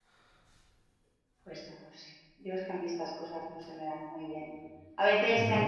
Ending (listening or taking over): listening